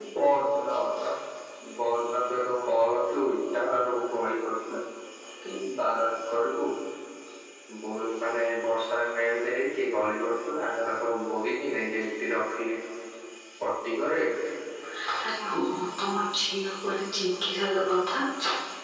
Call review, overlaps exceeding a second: none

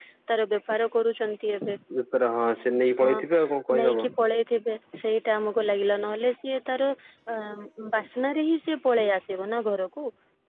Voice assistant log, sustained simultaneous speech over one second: none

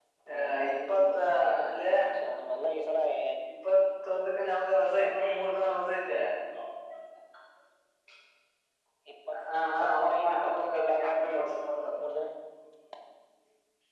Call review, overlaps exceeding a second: present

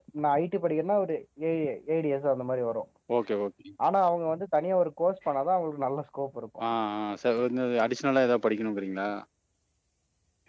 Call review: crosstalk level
none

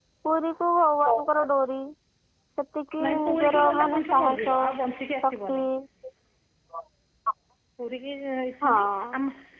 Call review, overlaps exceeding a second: present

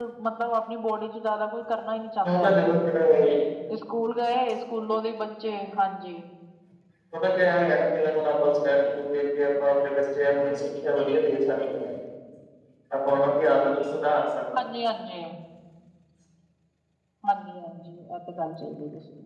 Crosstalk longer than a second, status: none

